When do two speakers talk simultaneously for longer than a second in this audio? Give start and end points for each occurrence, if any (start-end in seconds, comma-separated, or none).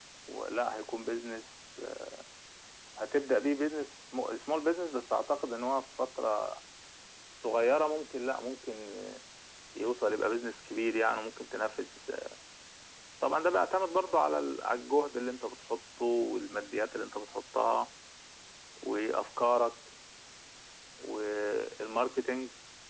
none